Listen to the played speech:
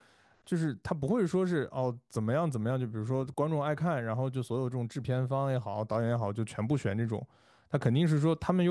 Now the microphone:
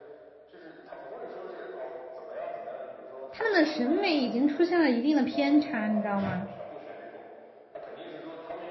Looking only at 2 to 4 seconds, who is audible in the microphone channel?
both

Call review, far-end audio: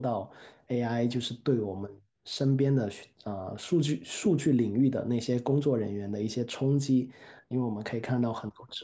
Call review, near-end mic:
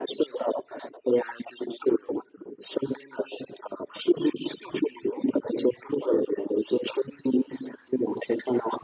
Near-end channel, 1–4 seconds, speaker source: echo only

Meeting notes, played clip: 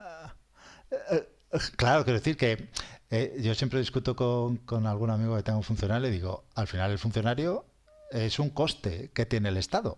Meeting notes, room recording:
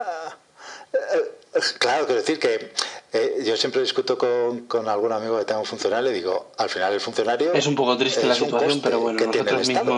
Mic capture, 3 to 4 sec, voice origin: echo only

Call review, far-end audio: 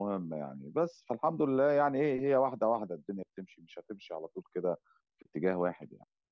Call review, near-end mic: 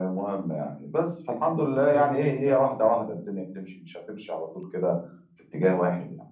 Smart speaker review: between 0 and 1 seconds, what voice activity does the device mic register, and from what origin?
echo only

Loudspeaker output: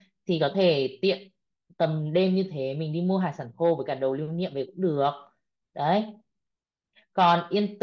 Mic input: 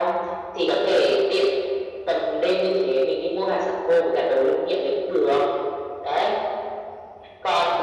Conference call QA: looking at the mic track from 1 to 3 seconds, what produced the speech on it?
echo only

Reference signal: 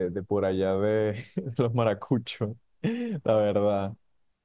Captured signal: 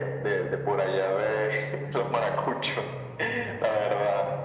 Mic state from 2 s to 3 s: echo only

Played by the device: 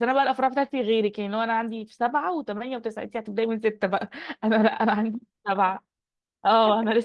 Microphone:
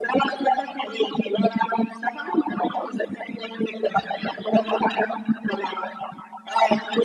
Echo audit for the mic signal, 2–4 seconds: echo only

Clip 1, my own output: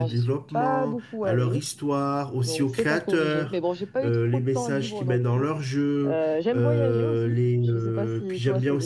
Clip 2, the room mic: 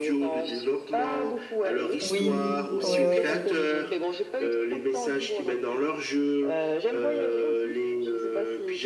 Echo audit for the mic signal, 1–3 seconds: both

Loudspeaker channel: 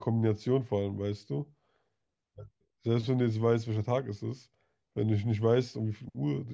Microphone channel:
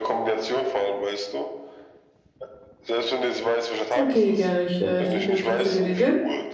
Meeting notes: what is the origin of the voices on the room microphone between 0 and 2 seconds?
echo only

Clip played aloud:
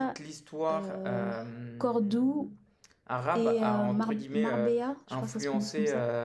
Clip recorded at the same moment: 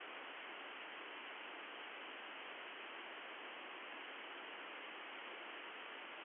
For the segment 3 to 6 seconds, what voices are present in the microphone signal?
neither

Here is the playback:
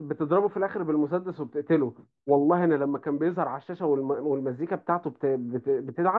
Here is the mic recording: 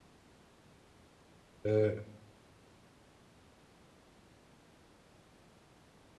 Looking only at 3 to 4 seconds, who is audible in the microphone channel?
neither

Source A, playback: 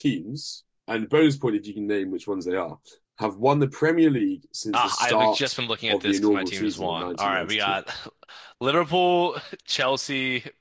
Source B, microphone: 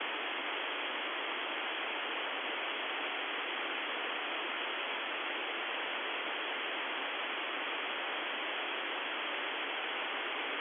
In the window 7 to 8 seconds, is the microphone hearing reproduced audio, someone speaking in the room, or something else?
neither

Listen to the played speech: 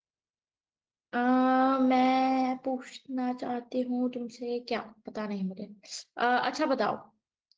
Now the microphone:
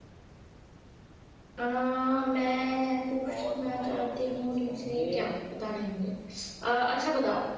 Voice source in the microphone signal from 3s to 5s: both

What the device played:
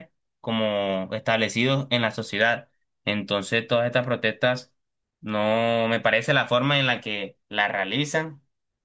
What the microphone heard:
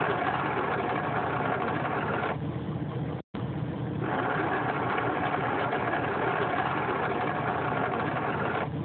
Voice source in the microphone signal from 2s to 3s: neither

